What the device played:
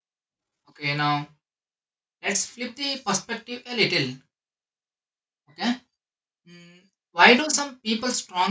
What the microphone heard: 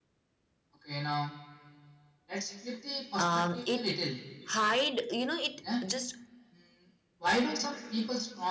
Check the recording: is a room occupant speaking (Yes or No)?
Yes